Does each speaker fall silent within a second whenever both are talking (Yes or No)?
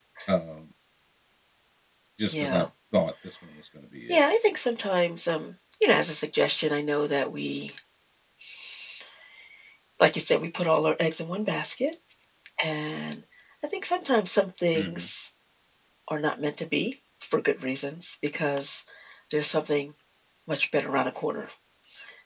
Yes